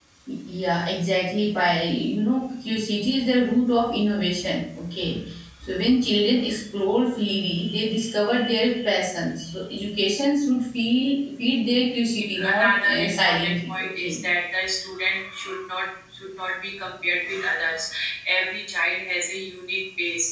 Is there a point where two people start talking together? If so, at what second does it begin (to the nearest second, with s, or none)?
12 s